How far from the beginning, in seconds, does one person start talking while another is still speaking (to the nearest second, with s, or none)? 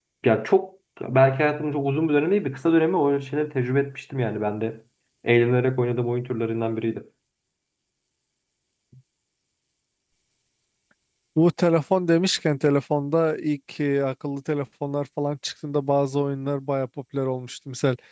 none